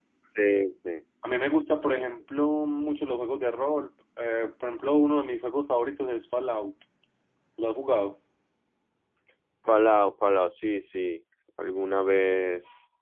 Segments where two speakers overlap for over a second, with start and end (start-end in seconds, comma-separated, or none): none